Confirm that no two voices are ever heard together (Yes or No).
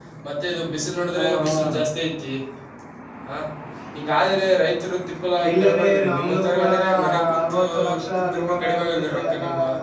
No